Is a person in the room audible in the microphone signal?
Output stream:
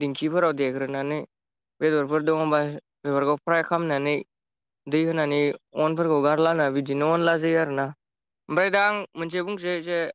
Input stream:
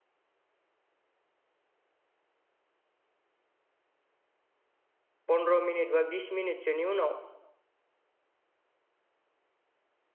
Yes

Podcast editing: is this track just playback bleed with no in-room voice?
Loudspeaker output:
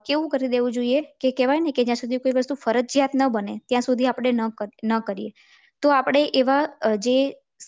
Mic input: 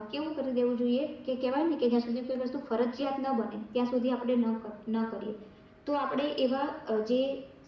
Yes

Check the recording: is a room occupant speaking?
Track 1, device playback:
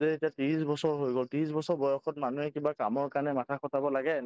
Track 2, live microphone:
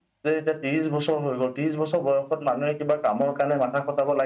No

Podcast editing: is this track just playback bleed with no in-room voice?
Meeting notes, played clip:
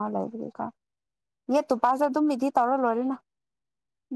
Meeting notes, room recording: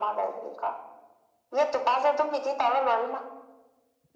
Yes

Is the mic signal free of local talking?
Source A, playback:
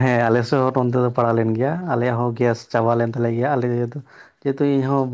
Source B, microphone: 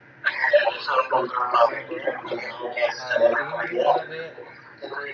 No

